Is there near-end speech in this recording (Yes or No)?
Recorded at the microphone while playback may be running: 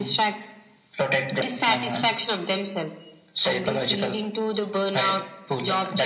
No